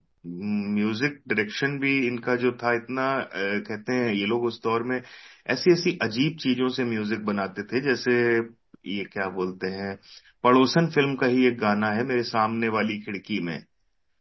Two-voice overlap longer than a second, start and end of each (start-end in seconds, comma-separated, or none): none